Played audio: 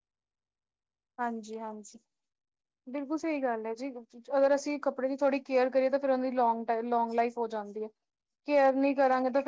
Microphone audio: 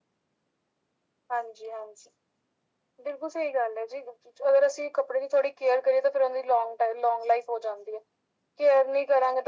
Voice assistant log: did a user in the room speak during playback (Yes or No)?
No